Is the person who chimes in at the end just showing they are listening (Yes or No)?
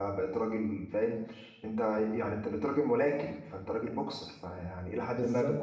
Yes